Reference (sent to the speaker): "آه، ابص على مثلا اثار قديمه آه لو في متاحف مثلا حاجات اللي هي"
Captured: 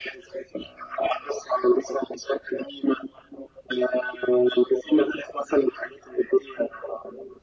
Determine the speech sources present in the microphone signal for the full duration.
echo only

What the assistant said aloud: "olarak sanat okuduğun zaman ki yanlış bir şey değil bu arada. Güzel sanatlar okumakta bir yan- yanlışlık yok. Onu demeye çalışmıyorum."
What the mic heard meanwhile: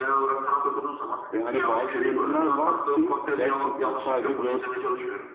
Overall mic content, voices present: both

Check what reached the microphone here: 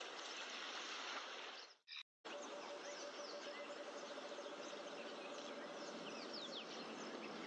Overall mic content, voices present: neither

